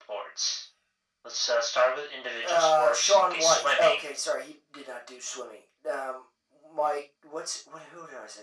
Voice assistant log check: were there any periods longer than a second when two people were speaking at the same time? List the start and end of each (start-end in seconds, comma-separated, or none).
2.4-4.0